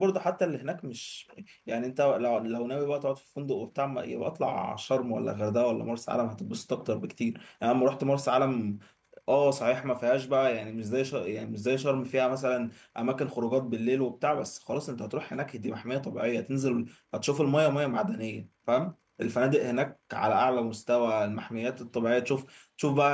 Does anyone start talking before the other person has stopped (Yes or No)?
No